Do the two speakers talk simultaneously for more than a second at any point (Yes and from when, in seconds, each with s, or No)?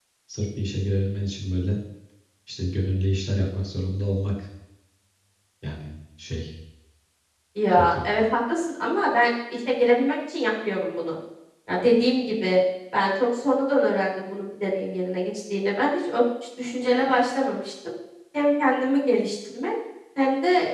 No